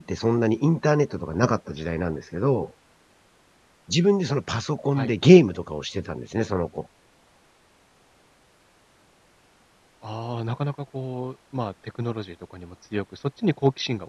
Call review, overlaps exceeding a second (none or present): none